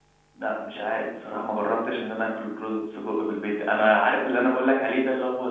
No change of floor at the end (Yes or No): Yes